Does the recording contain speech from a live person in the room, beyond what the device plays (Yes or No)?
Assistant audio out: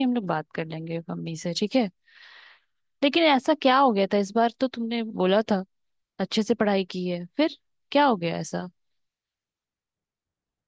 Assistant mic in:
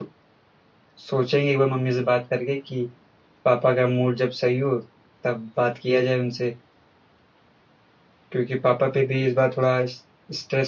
Yes